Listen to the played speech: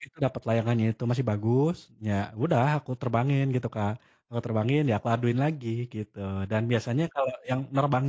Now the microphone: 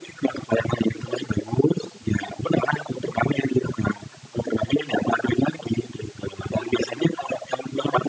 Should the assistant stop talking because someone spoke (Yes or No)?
No